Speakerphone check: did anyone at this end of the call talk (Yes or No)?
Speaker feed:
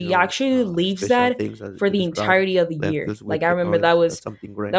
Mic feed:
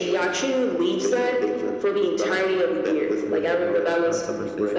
Yes